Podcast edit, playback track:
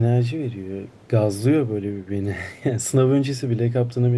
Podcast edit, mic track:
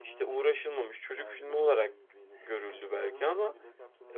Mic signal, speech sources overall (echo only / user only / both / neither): both